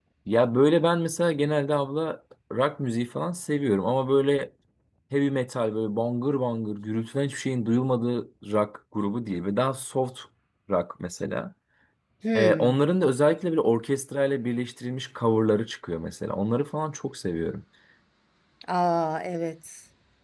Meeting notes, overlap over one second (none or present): none